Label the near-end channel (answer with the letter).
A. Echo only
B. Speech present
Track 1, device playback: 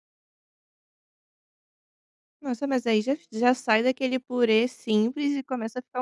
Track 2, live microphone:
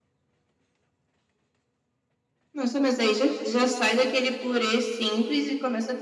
A